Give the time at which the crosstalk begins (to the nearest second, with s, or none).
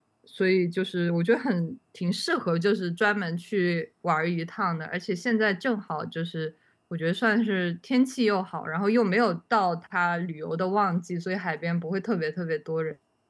none